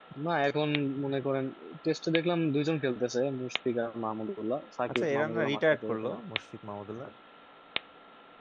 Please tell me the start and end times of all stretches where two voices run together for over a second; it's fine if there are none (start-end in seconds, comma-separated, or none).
5.0-6.2